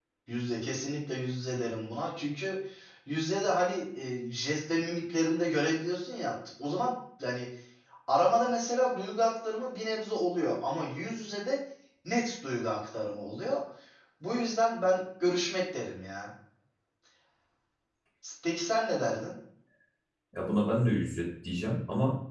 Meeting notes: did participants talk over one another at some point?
No

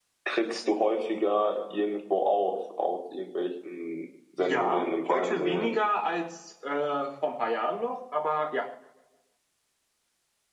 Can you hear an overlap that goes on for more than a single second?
Yes, from 4.4 s

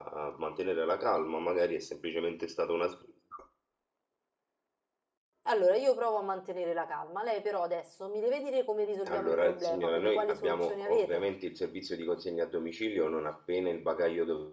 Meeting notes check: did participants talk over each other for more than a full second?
Yes, from 9.1 s

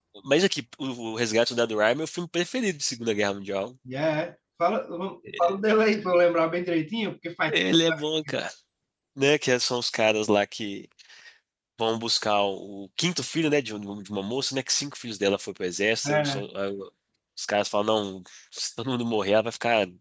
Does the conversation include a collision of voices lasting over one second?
No

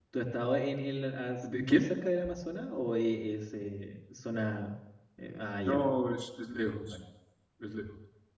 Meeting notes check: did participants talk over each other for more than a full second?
No

